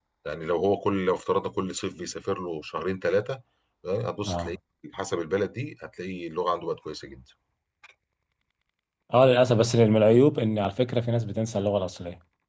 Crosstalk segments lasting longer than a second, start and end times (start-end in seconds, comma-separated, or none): none